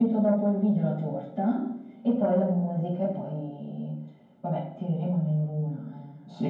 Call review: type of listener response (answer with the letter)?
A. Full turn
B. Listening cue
A